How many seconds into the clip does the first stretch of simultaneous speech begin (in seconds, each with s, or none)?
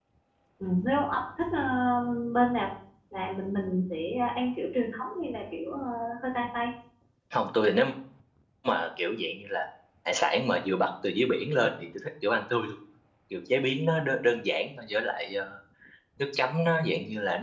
none